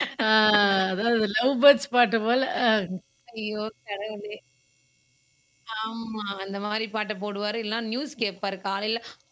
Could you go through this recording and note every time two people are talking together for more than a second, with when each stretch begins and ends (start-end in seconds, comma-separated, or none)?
none